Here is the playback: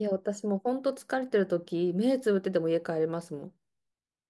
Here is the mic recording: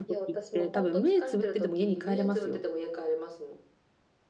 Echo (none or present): present